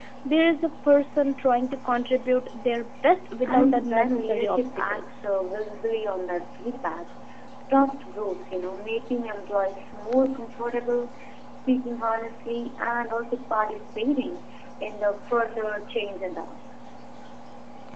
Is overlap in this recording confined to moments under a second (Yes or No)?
No